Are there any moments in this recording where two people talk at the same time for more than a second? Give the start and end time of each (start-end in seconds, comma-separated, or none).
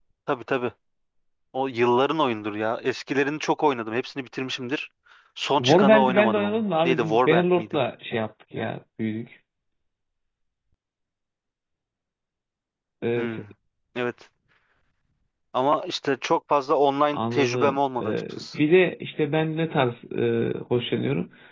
5.6-7.8, 17.1-18.4